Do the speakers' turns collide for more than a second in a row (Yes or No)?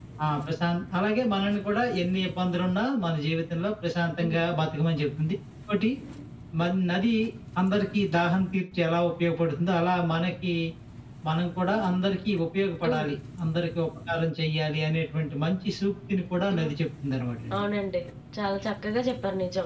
No